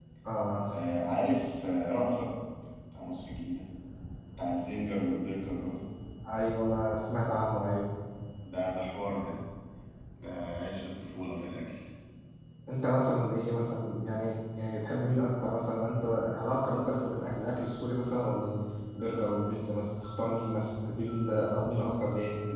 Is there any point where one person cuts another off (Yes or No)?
No